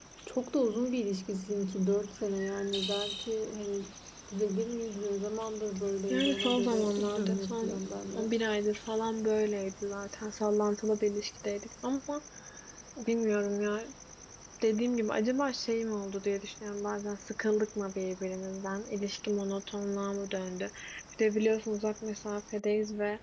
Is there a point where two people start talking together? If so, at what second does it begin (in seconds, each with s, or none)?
6.1 s